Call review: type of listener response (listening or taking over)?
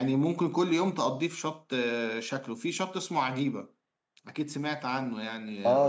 taking over